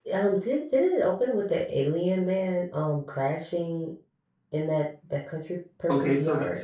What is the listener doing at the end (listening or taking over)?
taking over